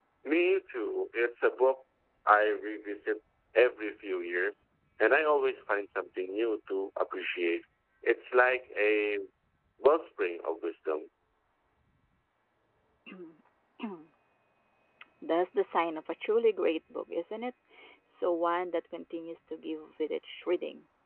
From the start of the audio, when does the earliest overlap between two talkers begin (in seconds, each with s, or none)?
none